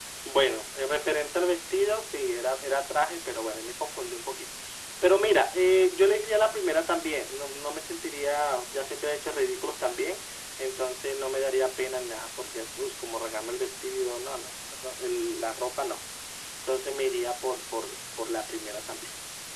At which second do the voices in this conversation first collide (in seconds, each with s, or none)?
none